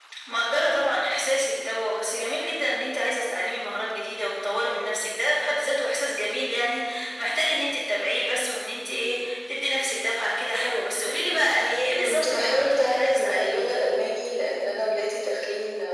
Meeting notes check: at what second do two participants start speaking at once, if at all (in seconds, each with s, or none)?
12.0 s